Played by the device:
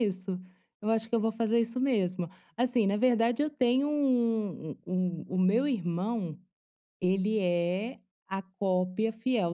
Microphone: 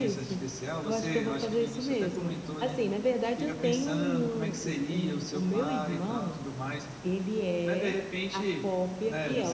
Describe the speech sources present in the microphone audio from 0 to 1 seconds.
both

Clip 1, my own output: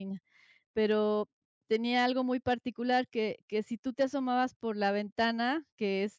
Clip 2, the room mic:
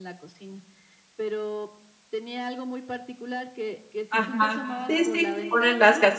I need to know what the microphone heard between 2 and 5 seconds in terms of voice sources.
both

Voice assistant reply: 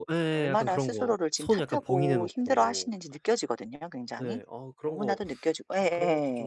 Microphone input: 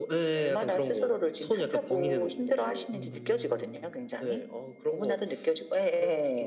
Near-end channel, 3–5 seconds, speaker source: both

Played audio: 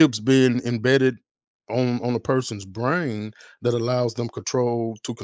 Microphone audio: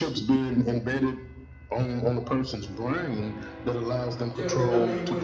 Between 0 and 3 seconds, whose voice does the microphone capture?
echo only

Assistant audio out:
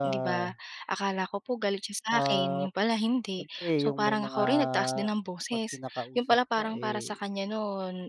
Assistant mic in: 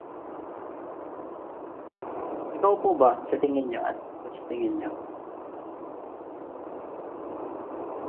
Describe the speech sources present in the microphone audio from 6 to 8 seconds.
neither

